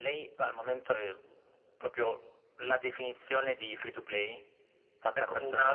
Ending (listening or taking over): taking over